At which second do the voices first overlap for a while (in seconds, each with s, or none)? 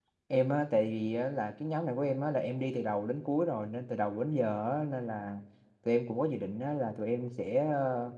none